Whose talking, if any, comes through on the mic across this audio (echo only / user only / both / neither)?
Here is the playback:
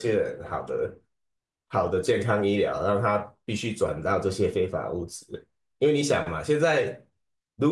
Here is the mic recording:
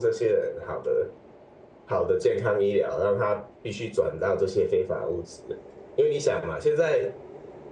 echo only